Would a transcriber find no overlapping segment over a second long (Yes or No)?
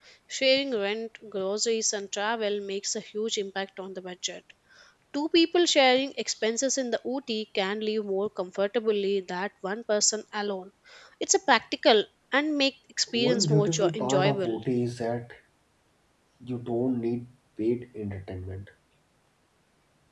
No